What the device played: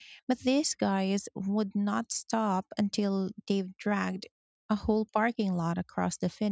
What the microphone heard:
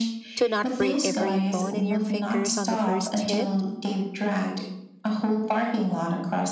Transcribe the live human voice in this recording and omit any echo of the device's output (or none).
to not break every bone in your fingers on the first hit?